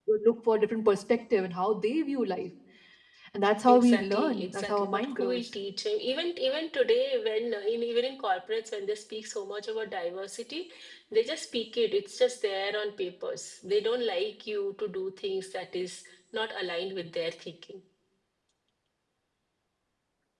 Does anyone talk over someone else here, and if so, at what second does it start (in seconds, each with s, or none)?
3.7 s